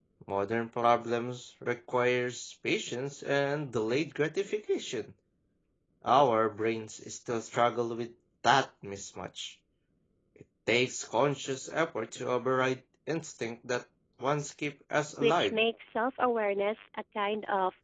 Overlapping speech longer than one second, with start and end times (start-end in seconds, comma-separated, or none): none